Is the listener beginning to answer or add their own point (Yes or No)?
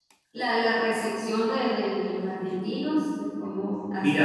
Yes